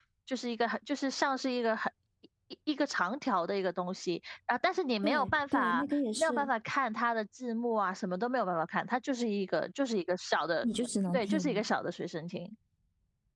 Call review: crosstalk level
present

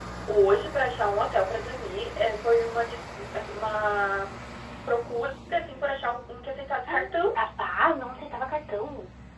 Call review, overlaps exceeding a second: none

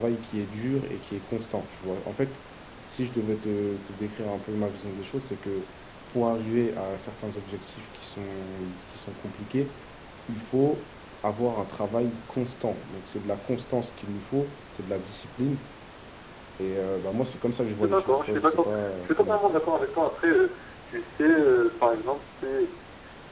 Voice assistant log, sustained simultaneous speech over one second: present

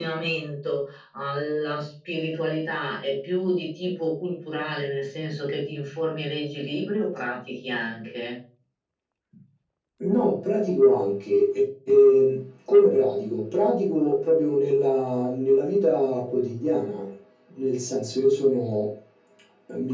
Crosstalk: none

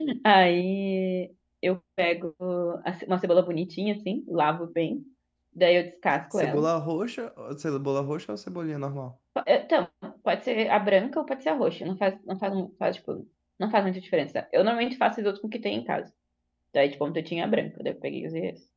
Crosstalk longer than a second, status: none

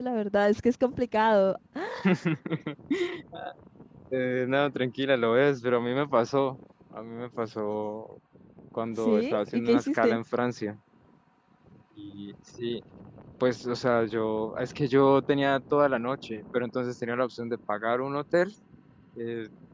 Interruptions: present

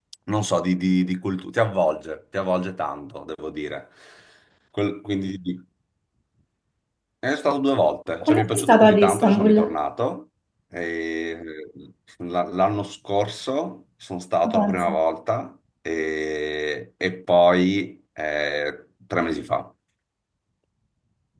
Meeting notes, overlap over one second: present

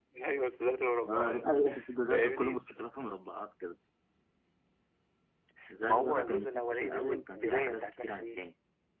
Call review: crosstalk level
present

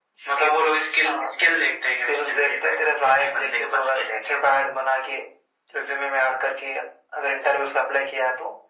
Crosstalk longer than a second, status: present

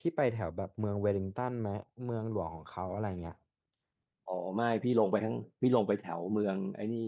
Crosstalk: none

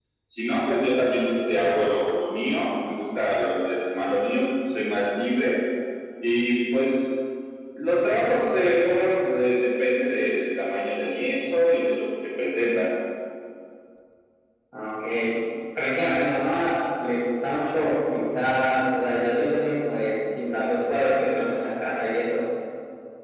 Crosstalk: none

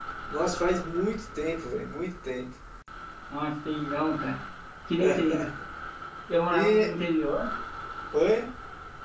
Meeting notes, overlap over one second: none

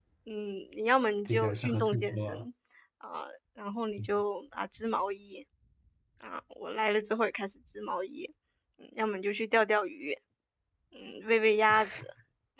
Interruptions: present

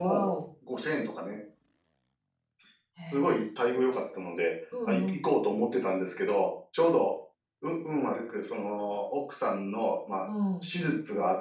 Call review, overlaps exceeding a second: none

